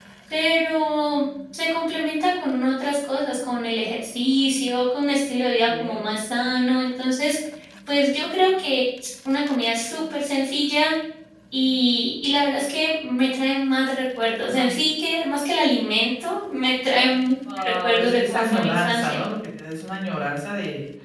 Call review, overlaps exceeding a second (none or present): present